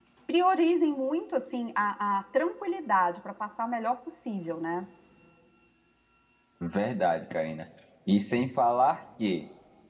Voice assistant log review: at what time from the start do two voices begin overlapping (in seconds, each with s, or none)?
none